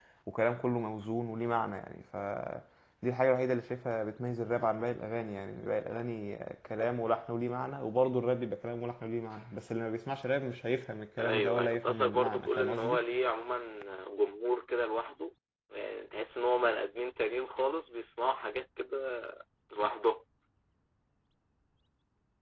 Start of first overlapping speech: 11 s

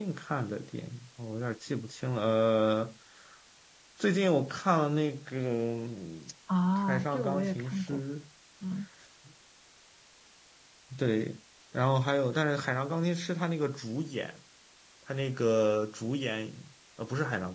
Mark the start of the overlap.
7 s

